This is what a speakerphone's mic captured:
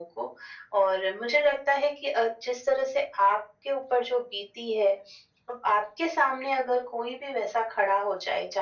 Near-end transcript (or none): none